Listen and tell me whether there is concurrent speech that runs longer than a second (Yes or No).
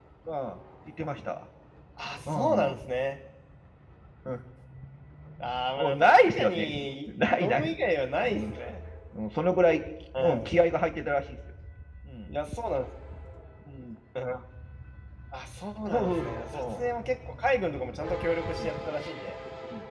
Yes